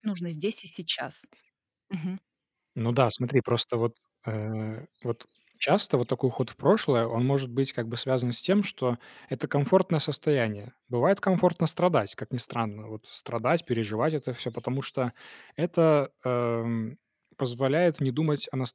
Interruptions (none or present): none